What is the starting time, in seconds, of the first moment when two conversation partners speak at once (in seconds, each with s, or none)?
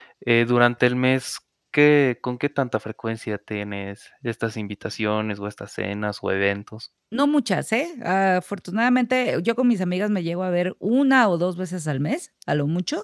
none